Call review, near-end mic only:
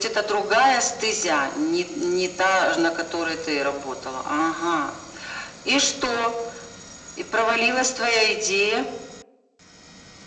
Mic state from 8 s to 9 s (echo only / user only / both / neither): echo only